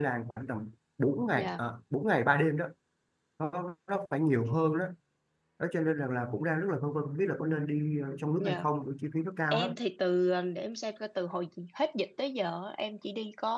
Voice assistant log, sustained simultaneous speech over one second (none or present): none